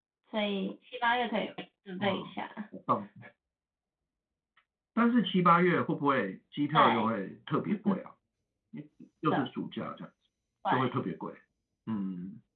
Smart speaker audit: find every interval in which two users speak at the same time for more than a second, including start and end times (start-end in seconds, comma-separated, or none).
none